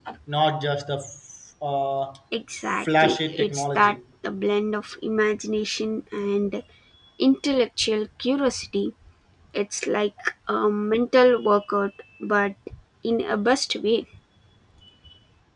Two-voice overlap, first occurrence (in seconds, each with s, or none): 2.6 s